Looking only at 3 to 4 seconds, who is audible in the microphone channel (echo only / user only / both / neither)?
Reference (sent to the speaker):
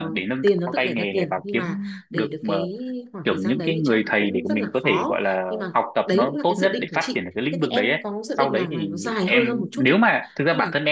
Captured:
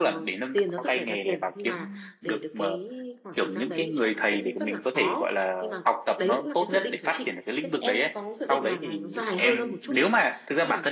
echo only